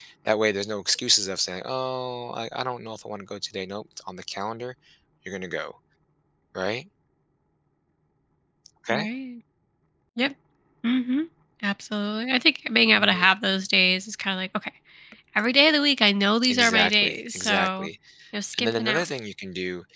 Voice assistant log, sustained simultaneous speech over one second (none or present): present